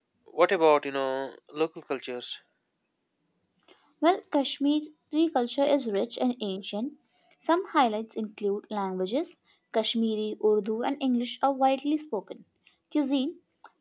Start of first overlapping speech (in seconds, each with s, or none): none